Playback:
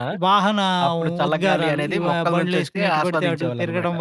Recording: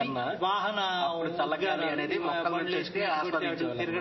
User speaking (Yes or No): No